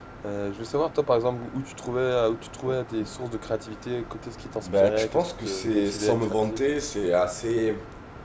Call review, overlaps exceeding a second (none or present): present